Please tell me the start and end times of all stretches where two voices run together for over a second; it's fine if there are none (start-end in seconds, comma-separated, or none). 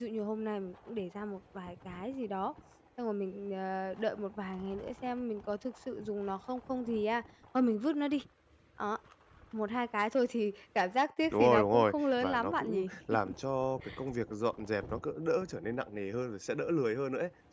11.3-12.9